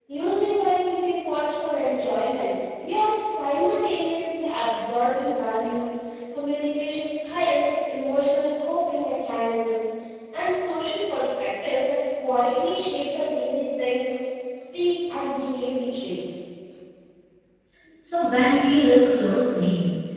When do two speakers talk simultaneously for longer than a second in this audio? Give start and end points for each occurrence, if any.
none

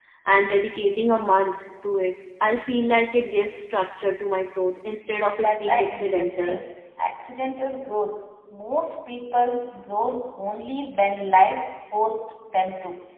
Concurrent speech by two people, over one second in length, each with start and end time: 5.4-6.6

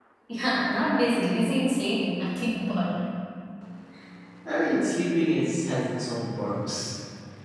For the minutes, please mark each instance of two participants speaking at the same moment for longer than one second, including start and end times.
none

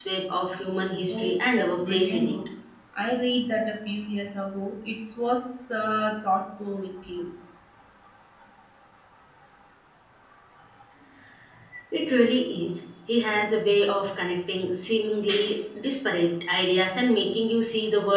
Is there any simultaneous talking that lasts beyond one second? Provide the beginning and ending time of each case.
1.1-2.4

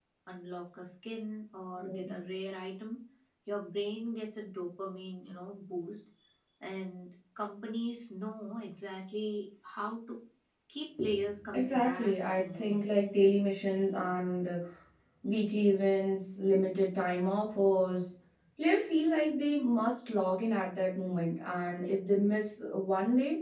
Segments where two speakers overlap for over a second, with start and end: 11.5-12.8

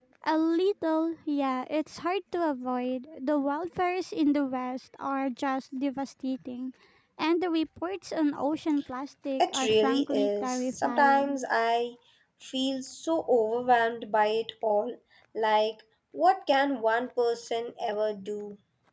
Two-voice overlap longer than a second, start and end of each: 9.4-11.4

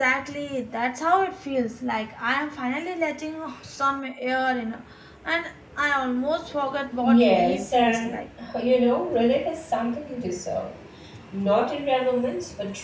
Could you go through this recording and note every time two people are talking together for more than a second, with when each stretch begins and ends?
7.0-8.2

